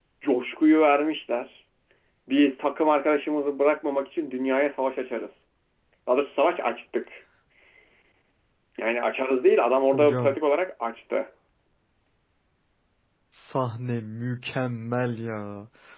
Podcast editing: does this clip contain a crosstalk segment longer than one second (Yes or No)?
No